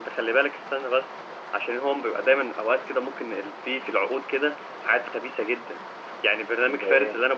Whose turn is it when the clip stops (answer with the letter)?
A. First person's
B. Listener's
A